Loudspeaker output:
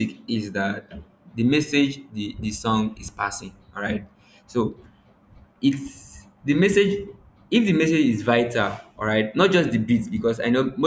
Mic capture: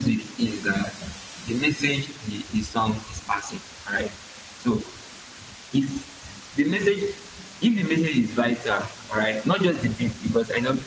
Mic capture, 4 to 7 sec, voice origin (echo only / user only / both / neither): echo only